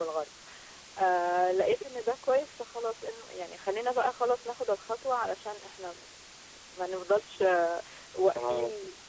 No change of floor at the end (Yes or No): Yes